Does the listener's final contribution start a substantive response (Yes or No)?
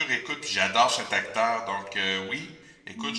No